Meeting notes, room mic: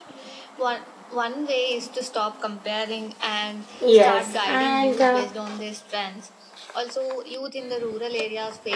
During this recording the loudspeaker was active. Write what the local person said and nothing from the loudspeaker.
Yes, and uh,

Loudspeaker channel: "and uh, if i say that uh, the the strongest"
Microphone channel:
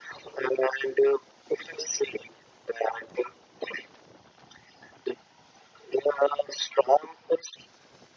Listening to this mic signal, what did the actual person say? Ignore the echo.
none

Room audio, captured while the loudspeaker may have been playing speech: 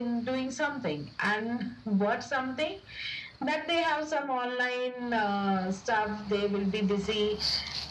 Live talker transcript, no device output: none

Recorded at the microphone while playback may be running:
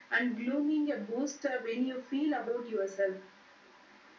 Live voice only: none

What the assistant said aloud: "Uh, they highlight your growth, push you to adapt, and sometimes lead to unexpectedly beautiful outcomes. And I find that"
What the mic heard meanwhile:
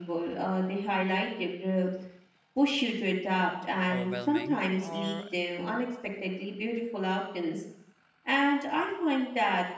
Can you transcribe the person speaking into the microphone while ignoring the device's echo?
overwhelming, or

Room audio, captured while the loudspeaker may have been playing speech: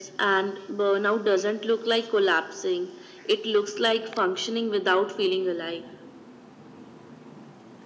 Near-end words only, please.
none

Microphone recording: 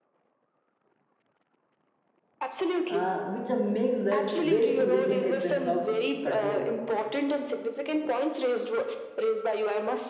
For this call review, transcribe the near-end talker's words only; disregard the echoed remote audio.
uh, which uh, makes that ways to regain a sense of control

